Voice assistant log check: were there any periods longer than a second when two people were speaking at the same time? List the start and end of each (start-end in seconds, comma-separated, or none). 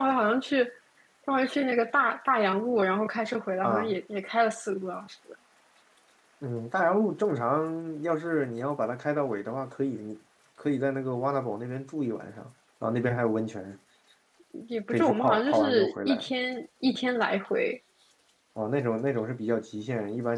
14.9-16.3